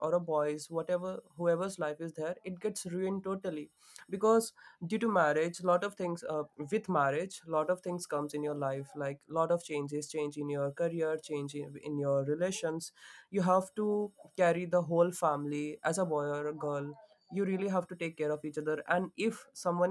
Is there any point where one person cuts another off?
No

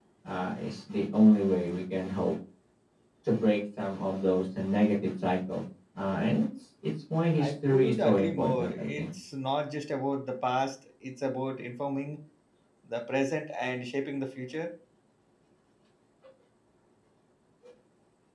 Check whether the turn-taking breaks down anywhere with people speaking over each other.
Yes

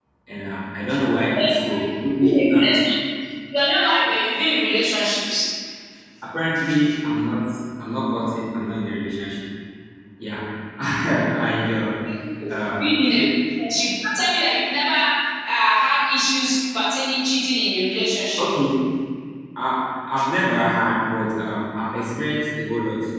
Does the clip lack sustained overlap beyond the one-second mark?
No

